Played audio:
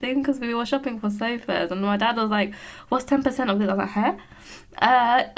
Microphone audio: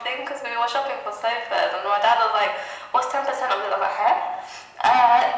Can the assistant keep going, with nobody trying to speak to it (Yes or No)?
Yes